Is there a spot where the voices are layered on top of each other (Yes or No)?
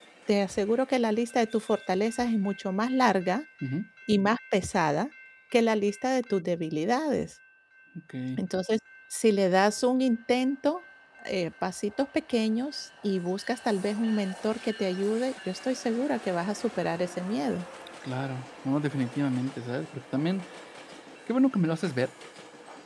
No